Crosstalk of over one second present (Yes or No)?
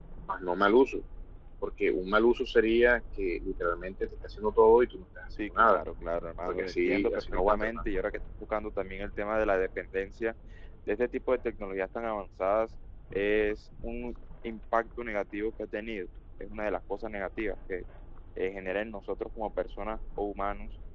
Yes